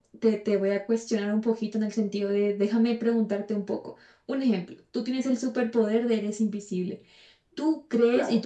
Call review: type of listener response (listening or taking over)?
listening